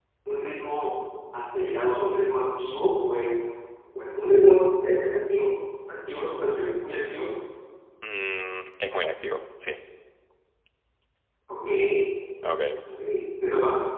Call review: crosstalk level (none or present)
none